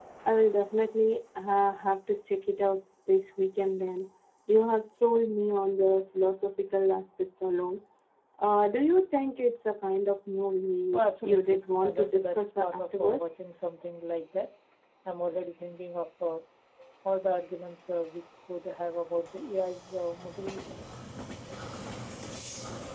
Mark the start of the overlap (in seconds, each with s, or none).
10.9 s